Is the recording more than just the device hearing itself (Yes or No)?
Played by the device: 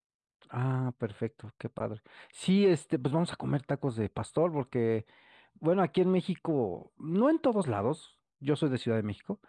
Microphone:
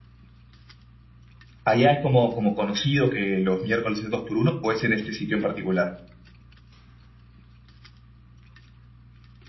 Yes